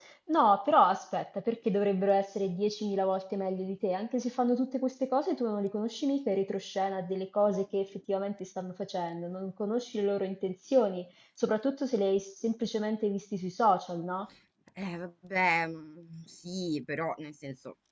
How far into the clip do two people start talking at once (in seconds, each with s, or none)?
none